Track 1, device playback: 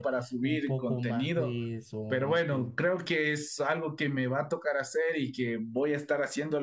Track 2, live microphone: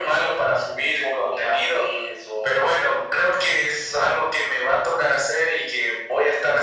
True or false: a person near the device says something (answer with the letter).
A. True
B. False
B